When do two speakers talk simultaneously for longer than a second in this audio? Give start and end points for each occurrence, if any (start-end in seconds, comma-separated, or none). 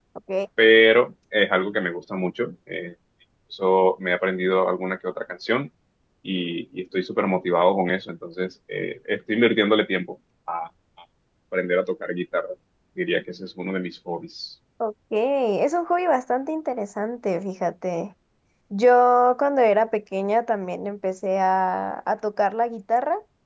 none